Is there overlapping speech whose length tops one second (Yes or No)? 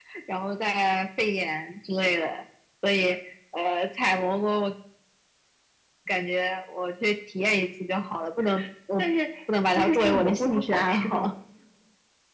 Yes